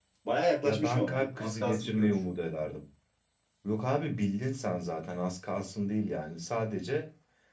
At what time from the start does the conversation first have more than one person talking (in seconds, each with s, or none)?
0.6 s